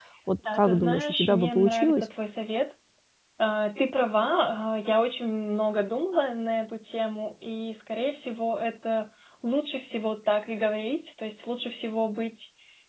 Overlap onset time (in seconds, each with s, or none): 0.5 s